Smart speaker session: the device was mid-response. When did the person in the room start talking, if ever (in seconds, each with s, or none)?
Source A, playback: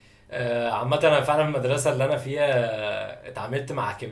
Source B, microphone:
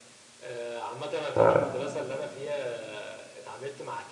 1.4 s